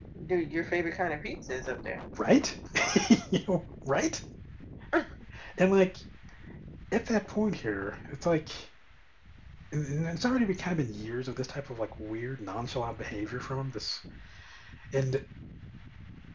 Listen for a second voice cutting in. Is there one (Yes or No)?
No